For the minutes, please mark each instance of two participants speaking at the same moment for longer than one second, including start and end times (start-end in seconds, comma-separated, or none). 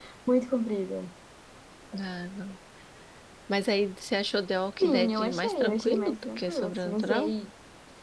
4.8-7.3